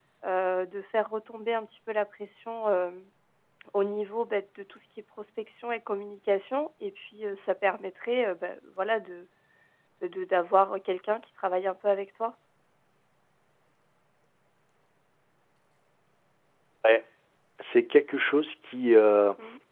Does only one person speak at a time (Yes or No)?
Yes